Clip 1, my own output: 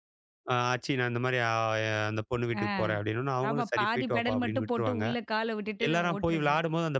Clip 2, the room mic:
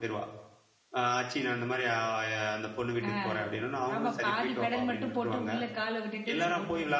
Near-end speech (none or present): none